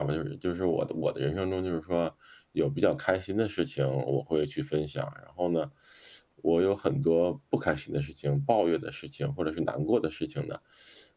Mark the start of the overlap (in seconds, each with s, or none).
none